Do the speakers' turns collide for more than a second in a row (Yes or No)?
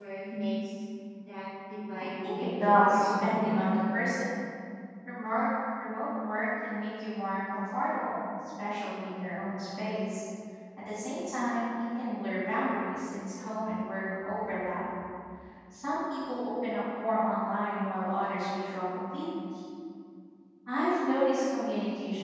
Yes